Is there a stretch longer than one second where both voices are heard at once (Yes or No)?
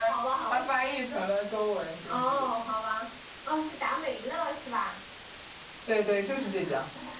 No